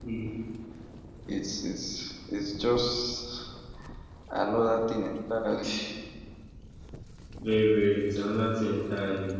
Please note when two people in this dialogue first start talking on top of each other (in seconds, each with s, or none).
none